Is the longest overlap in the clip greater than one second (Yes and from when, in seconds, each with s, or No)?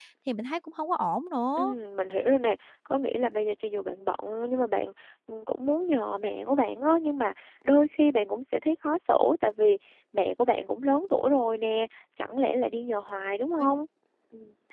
No